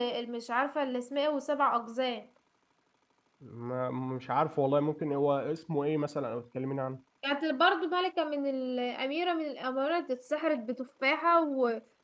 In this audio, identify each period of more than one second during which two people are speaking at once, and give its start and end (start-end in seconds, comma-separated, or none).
none